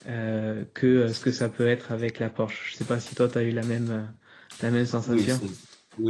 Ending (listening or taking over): taking over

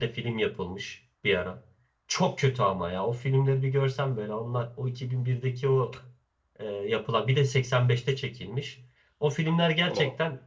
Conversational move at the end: listening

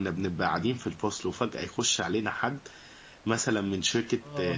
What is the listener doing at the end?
listening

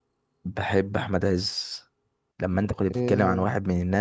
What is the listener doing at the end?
listening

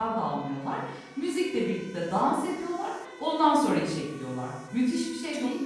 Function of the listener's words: taking over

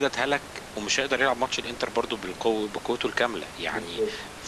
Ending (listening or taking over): listening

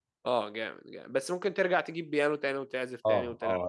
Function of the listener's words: taking over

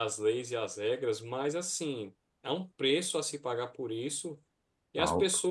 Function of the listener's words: listening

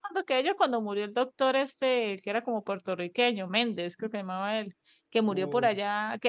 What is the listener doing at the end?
listening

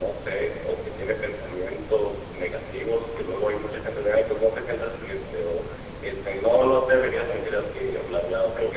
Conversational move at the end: listening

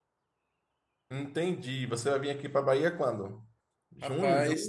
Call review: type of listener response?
taking over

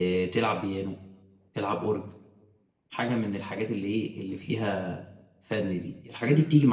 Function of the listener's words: listening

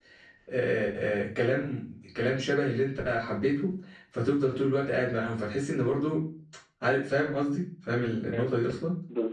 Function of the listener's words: taking over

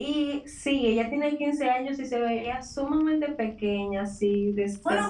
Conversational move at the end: taking over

